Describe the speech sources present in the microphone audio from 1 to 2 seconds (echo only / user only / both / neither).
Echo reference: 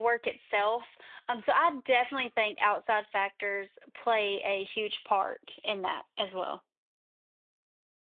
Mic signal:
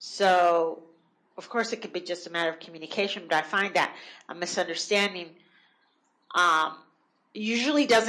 user only